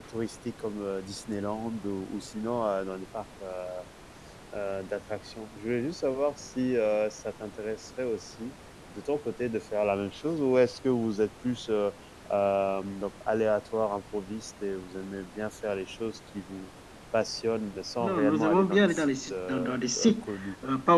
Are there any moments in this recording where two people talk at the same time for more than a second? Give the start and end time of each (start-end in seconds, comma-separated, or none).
18.0-20.2